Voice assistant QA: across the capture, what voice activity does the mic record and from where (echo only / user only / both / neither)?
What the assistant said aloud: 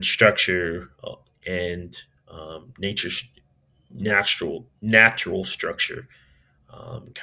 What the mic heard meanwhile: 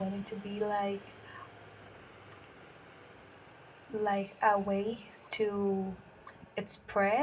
user only